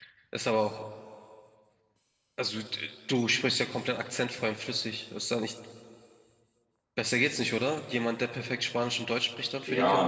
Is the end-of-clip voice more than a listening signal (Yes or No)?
Yes